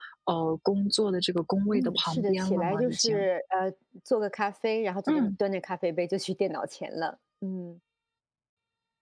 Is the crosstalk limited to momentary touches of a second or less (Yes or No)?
No